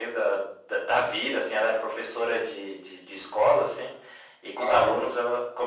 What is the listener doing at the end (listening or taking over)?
listening